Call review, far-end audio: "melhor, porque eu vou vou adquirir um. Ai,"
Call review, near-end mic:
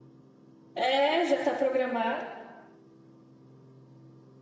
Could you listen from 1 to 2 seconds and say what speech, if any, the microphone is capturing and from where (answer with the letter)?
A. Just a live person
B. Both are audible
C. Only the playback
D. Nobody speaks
A